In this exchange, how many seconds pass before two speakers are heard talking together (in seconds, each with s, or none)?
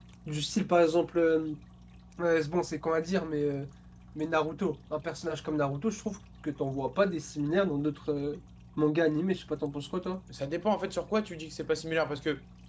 none